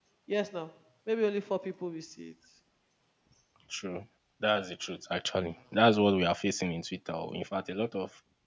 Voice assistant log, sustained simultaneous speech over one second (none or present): none